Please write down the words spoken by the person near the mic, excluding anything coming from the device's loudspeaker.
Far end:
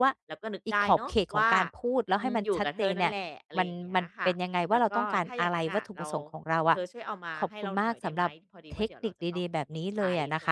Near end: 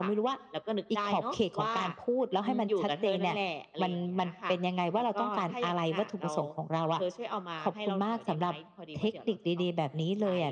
none

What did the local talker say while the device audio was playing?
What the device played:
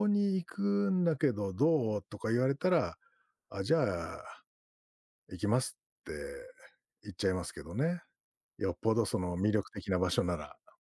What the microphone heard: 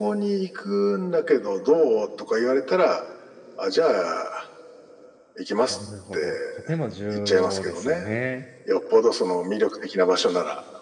なるほど。とても重要ですよね。

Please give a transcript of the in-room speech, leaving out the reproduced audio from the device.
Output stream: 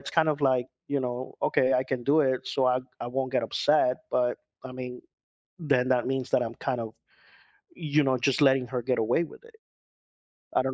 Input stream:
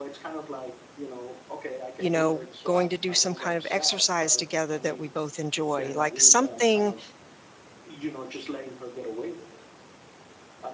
you know, going to do some kind of exercise together that we both enjoy, like something

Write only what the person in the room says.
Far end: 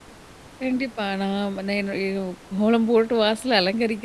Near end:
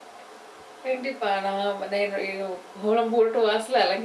none

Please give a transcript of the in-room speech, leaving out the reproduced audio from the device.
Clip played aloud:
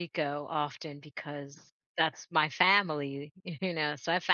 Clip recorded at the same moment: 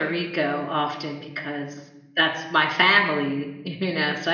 none

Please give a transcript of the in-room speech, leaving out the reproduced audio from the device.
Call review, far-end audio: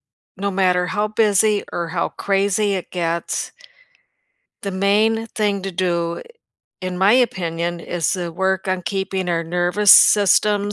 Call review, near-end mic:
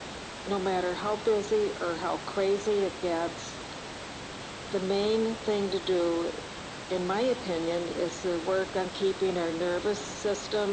none

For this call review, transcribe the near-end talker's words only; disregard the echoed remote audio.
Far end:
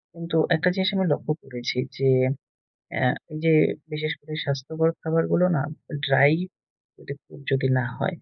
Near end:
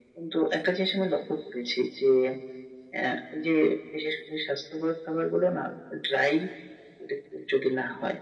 none

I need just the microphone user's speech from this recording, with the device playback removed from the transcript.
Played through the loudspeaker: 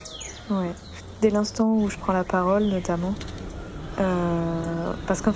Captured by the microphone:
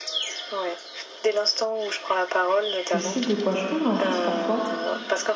je sais de quoi je parle en plus parfois,

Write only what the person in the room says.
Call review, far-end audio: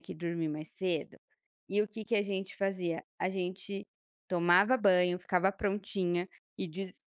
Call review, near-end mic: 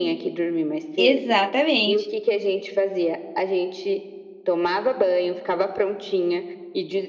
Exatamente.

